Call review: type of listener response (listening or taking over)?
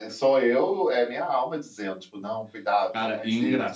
taking over